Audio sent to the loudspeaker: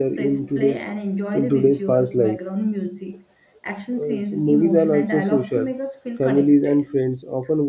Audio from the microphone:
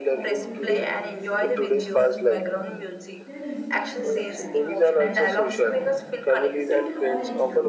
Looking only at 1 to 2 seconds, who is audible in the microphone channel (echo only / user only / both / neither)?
both